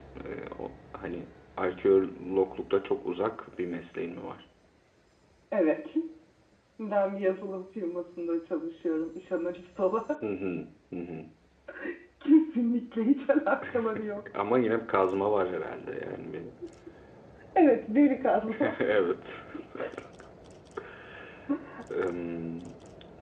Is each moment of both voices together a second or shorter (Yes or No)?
Yes